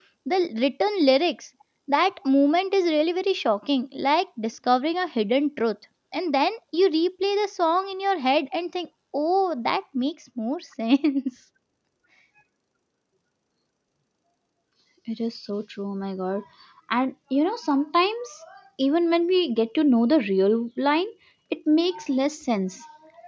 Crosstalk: none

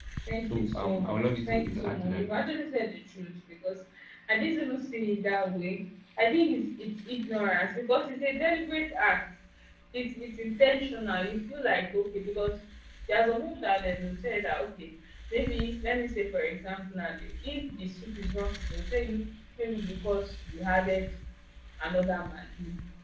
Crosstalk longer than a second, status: present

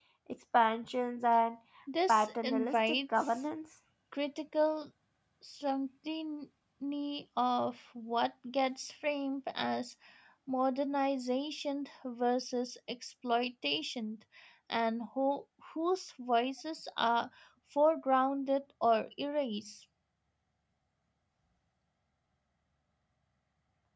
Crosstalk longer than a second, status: present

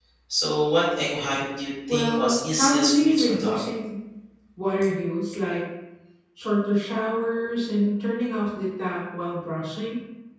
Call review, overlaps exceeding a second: present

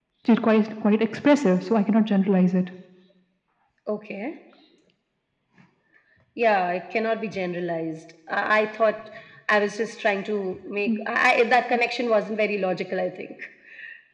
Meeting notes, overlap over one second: none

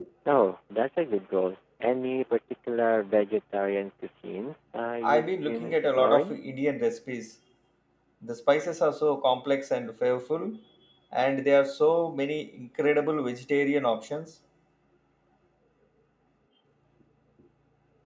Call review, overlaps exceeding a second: present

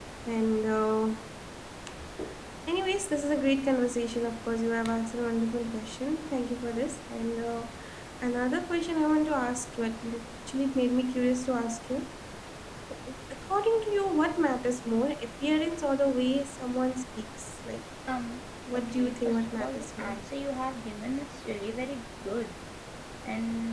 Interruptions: present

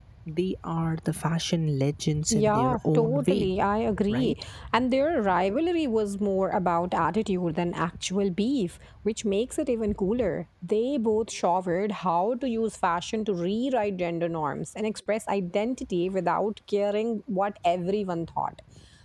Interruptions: present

